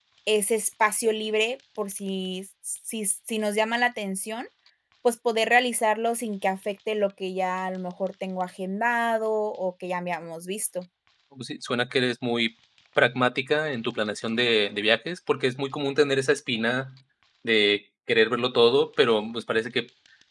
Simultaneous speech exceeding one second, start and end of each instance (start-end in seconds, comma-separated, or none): none